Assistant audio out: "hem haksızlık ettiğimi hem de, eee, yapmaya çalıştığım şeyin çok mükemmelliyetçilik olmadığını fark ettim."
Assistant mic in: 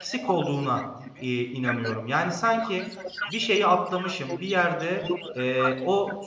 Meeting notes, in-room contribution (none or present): present